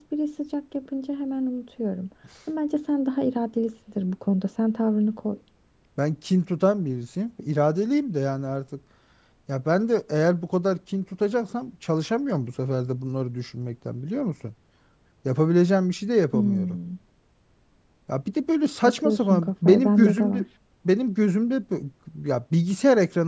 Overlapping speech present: Yes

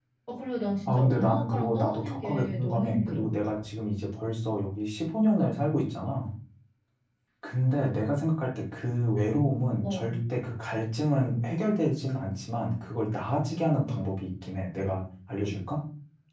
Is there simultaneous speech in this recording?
Yes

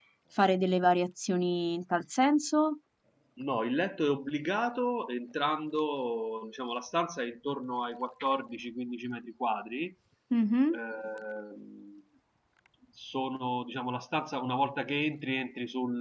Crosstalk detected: No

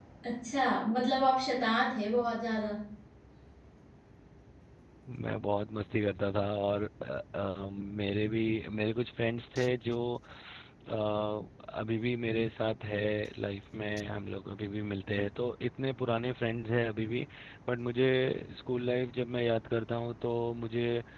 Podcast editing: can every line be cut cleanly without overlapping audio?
Yes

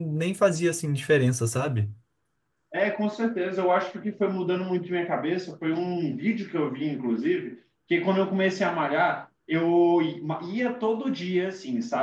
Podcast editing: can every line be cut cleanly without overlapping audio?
Yes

